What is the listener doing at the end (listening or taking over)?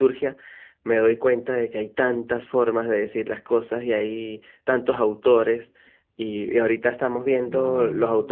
listening